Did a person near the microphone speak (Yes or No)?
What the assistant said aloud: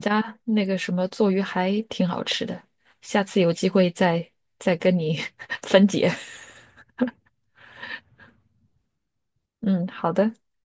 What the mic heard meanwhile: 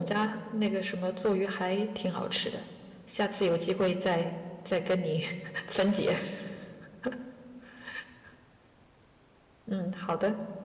No